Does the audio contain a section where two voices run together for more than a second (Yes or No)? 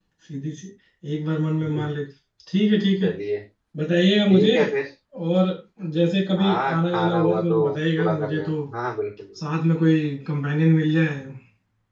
Yes